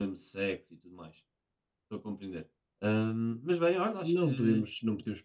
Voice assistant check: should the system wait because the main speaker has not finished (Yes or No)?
No